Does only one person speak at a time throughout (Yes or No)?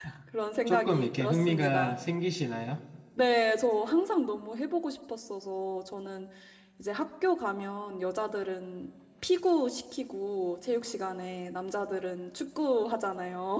No